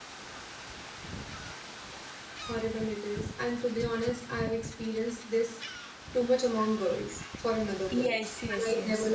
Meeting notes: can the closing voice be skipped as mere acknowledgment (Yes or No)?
No